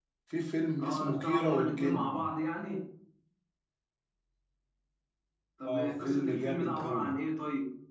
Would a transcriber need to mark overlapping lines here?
Yes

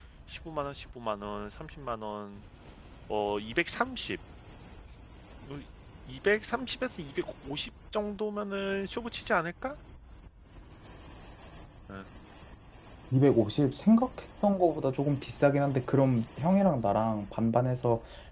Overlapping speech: No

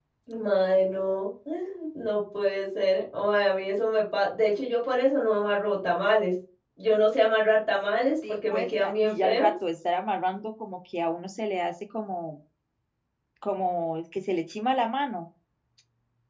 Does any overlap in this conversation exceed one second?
Yes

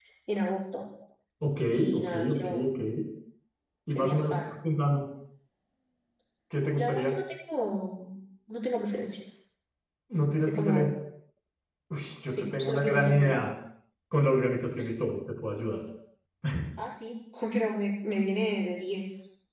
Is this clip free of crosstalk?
No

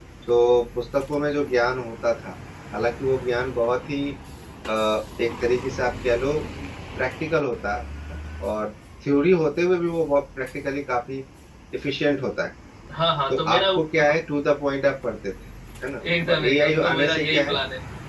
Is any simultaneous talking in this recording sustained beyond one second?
Yes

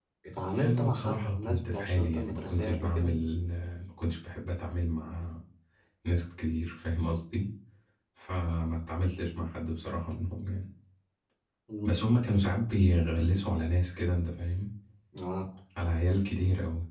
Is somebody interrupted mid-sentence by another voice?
Yes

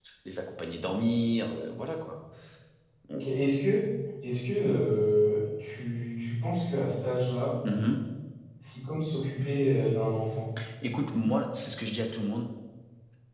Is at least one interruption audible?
No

